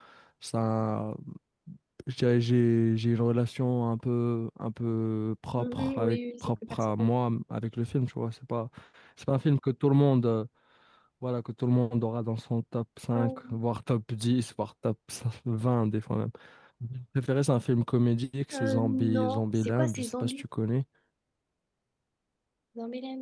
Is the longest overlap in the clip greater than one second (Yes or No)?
Yes